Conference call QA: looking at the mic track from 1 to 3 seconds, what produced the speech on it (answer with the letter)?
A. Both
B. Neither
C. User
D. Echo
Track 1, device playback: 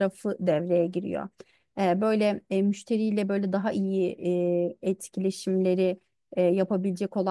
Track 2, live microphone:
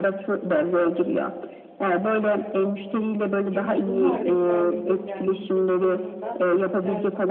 D